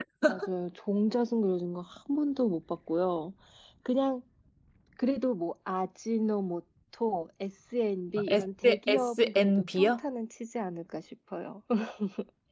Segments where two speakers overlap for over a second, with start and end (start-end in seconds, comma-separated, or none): 8.3-10.0